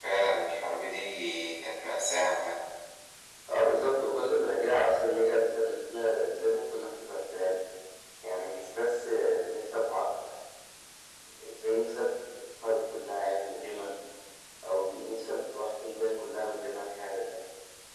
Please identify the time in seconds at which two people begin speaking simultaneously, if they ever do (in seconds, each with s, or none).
none